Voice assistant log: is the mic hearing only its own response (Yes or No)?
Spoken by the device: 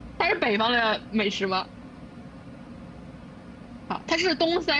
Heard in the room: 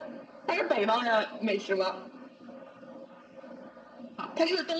Yes